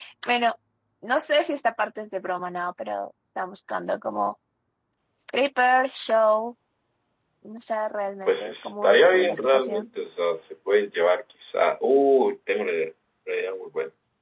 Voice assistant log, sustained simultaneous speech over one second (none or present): present